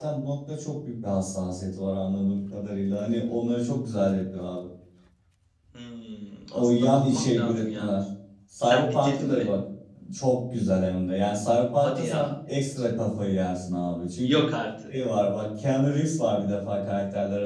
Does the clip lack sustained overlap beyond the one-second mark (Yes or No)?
No